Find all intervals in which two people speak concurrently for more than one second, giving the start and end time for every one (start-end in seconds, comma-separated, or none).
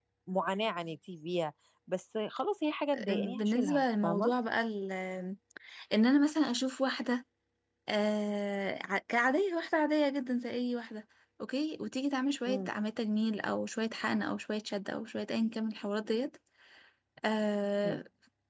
3.1-4.3